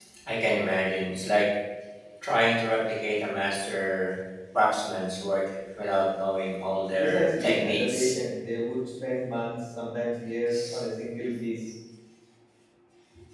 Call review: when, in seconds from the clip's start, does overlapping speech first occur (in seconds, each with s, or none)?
7.0 s